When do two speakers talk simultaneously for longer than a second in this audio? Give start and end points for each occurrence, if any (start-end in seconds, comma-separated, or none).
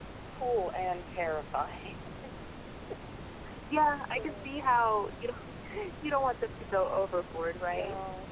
none